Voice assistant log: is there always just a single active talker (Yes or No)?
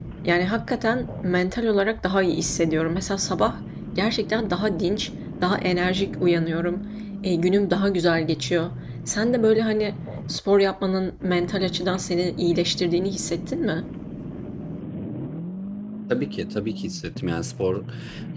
Yes